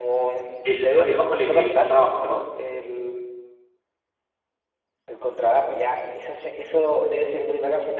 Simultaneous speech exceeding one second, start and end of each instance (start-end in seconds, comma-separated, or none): 0.7-2.5